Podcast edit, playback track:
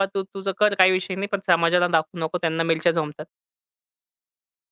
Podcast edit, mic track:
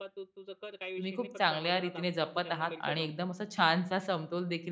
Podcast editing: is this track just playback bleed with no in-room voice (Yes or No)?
No